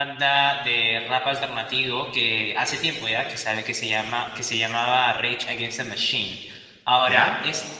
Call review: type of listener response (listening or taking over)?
listening